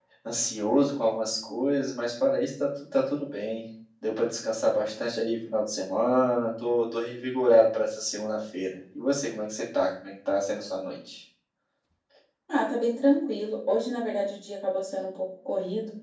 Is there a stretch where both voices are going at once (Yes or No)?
No